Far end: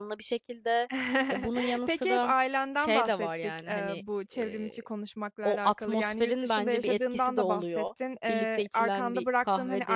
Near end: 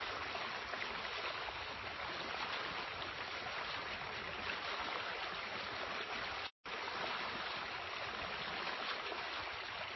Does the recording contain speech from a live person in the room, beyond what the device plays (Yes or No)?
No